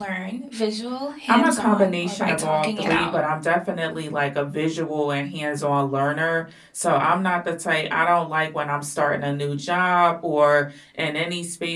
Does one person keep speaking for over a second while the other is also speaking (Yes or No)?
Yes